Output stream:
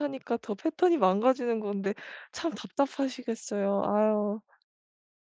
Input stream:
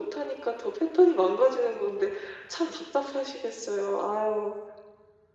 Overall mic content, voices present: echo only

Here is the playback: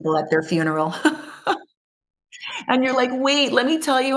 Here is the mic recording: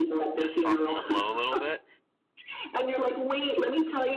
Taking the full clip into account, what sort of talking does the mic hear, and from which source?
both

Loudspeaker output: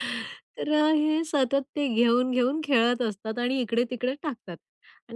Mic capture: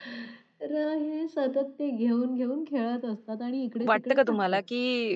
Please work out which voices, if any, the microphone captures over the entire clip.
both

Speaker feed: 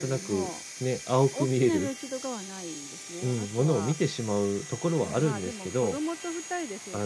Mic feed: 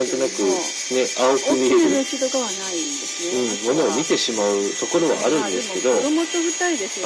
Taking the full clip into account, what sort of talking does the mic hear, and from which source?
echo only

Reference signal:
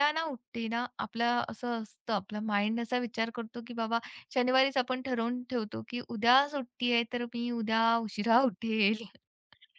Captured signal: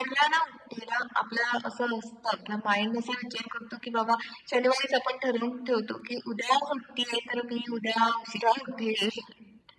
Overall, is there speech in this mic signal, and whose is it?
echo only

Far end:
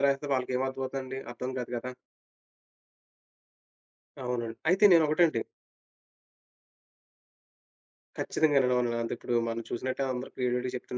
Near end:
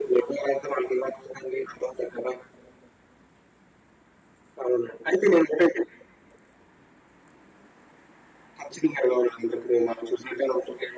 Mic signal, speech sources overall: echo only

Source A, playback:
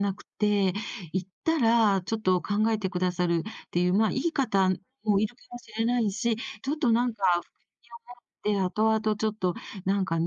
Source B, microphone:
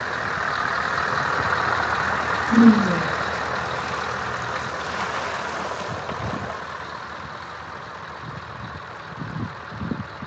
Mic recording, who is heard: user only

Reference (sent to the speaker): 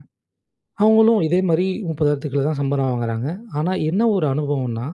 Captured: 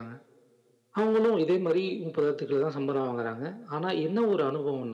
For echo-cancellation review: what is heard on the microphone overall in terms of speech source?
echo only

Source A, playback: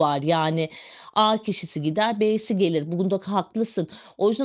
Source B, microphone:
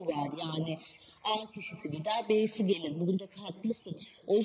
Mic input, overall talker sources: echo only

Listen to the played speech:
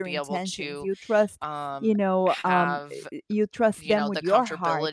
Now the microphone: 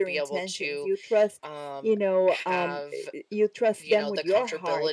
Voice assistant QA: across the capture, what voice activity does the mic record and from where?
echo only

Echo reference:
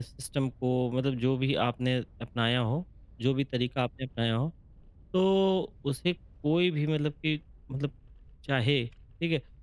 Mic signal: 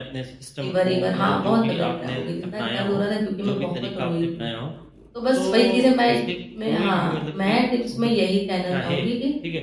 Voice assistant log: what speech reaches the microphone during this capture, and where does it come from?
both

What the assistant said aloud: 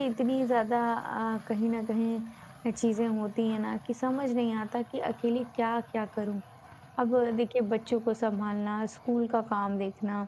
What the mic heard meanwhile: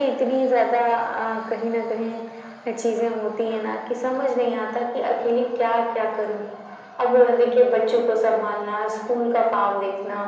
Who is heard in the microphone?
echo only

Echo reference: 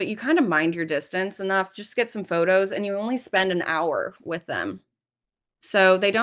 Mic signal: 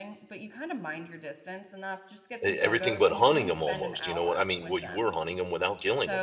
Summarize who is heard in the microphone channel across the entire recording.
both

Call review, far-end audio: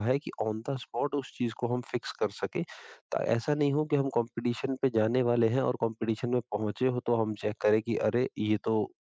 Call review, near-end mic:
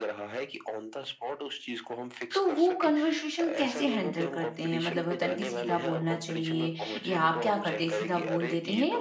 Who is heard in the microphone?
both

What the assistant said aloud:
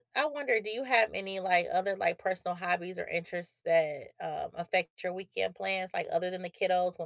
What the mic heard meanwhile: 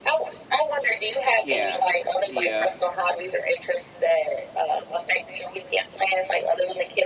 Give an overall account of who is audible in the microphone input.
both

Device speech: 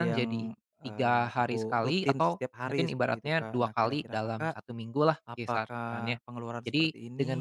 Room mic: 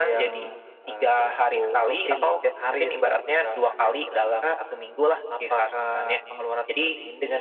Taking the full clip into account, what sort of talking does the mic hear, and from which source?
echo only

